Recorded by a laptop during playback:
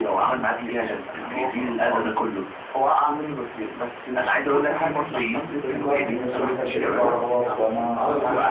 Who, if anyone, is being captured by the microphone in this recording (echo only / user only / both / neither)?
both